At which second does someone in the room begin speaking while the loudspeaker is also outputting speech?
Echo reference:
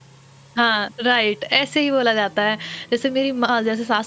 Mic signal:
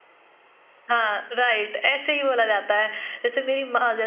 none

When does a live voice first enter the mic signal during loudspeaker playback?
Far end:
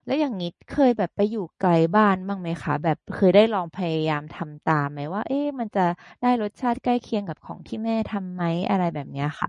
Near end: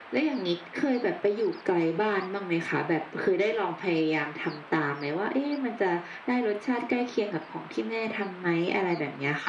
none

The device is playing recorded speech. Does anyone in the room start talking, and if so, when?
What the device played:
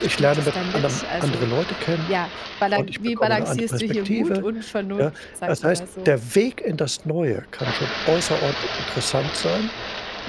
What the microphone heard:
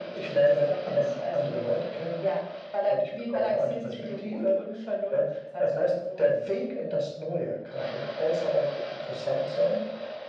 none

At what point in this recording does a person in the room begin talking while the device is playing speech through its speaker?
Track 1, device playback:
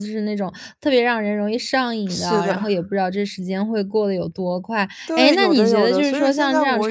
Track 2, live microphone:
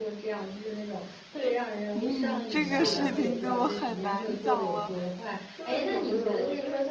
1.9 s

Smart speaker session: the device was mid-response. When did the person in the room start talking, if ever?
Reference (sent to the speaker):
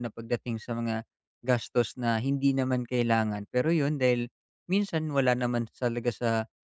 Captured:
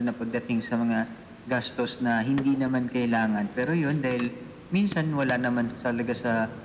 none

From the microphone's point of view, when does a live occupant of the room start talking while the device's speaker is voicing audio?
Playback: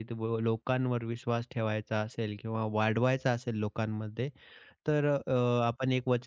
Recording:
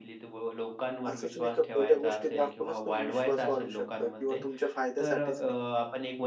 1.1 s

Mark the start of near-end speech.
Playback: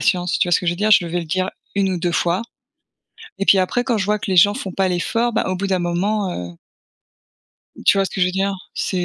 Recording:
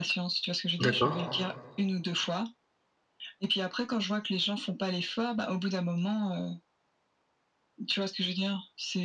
0.8 s

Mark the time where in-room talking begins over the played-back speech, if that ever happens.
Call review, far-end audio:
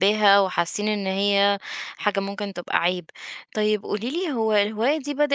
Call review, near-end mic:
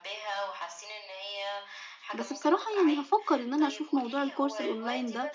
2.1 s

